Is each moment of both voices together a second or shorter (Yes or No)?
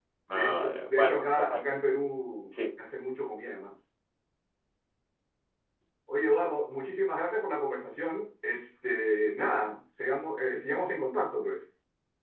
No